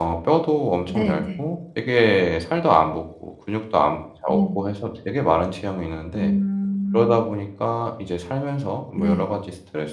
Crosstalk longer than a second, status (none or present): none